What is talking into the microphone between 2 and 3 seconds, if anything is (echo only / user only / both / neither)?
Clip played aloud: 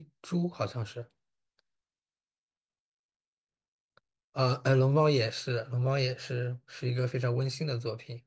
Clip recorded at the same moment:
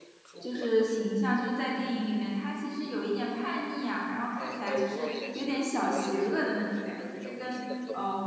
user only